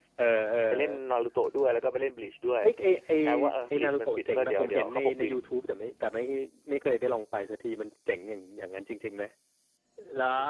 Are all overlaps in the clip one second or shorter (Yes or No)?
No